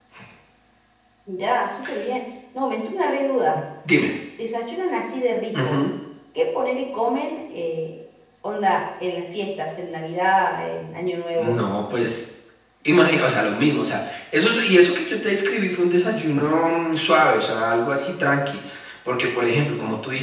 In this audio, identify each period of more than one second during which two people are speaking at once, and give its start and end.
none

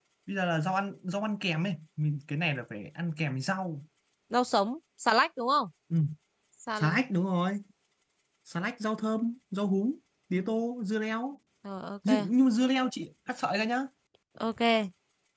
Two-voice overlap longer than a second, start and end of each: none

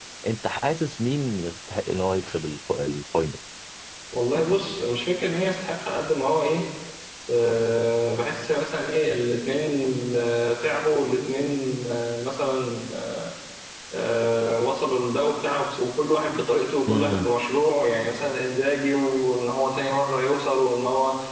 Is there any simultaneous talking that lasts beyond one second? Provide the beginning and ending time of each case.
none

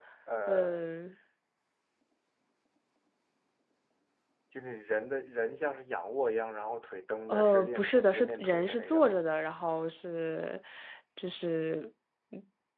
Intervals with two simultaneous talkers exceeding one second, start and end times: 7.3-9.2

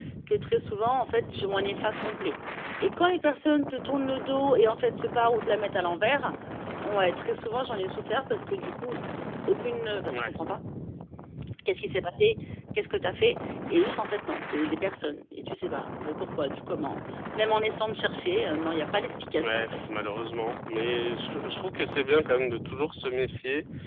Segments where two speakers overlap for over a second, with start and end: none

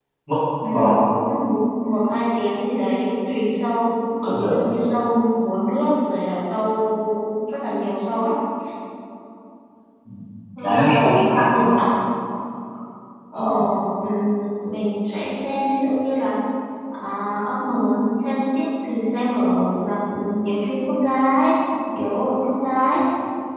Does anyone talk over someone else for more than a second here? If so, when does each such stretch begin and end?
10.6-11.8

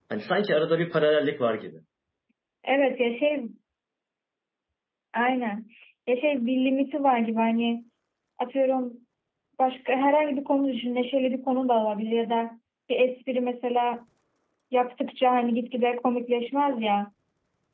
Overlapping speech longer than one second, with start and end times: none

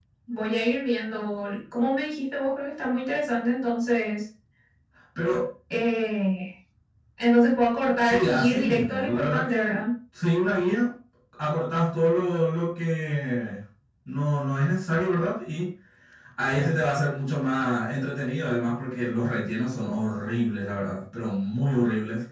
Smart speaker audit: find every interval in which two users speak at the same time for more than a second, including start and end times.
8.1-9.8

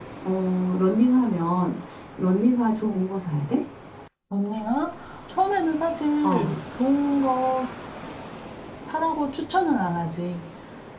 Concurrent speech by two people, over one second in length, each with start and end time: none

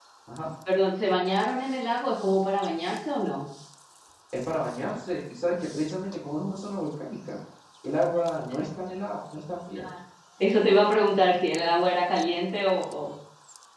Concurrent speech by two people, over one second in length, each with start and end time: none

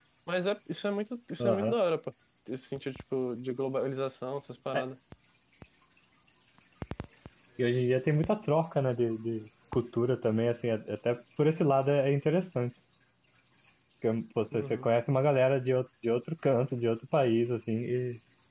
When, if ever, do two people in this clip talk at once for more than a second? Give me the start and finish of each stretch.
none

